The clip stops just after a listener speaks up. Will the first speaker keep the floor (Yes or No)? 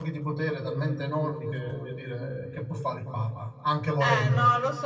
No